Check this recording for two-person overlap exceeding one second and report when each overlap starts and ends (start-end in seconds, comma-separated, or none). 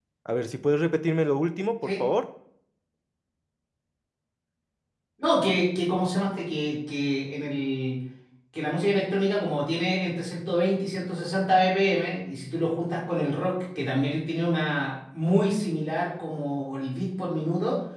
none